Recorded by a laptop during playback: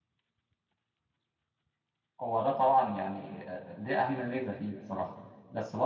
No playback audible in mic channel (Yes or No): Yes